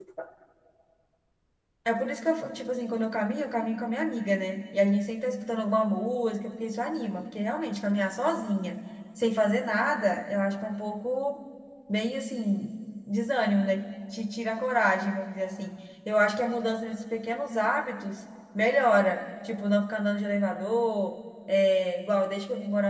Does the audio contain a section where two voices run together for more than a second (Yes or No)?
No